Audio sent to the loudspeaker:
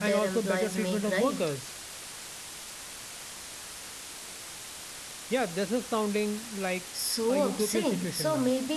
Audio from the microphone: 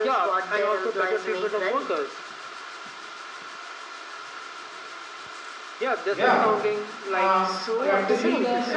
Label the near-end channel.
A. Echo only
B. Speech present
B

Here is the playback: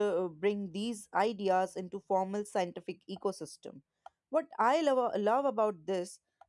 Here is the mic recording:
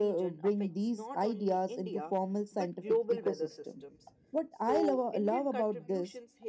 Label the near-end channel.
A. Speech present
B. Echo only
A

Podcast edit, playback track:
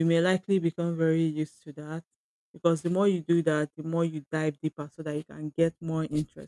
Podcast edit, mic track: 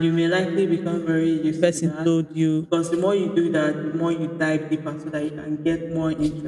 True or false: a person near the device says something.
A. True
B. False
A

